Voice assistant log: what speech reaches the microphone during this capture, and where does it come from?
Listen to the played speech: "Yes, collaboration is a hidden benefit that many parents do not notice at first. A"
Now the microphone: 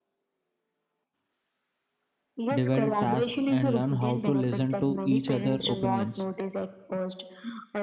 both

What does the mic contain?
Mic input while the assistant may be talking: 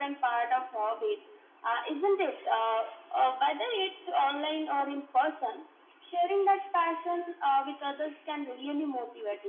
echo only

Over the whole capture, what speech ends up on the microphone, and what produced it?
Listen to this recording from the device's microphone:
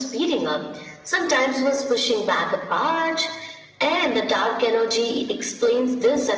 echo only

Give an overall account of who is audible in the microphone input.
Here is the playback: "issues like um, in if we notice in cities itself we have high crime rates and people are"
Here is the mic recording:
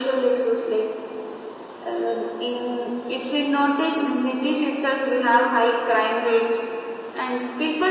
echo only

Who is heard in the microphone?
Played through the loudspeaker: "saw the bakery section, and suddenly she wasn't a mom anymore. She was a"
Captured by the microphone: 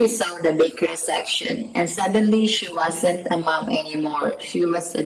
echo only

